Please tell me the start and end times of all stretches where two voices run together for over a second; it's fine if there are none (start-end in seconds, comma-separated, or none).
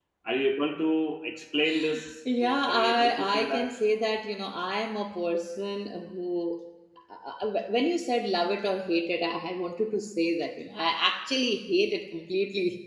2.4-3.7